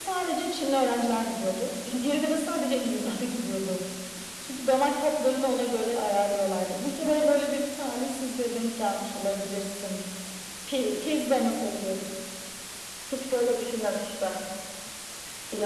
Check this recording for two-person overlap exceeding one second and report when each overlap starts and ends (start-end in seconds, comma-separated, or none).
none